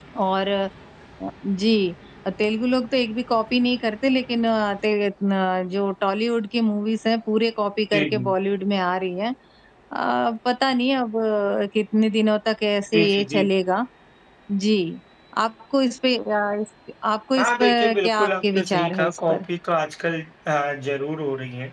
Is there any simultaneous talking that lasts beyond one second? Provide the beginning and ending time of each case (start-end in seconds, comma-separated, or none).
17.4-19.5